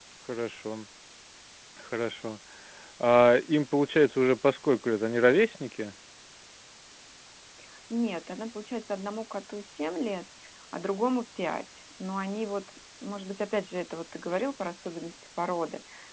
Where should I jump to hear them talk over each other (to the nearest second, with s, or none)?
none